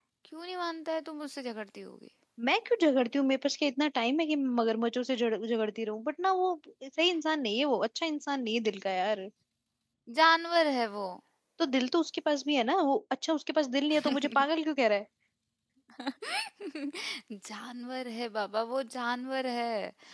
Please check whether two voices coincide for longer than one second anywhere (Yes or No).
No